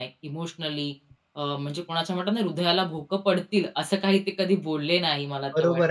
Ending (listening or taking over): taking over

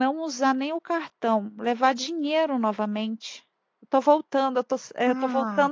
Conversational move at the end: taking over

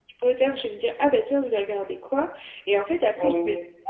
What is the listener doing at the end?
listening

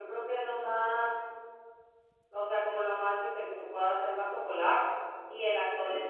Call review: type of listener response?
listening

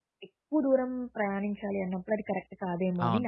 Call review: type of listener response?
taking over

